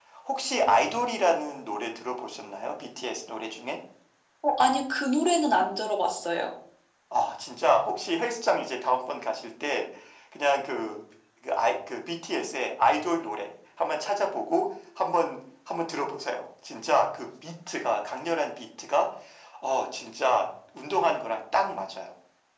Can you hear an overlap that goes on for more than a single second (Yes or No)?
No